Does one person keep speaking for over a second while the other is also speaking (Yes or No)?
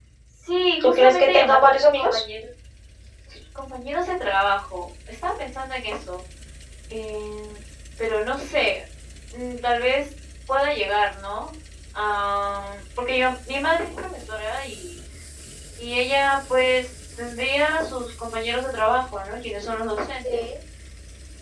Yes